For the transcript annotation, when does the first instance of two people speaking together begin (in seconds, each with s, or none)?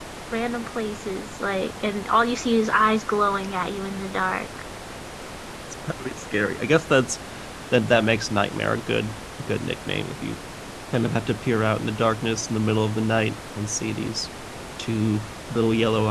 none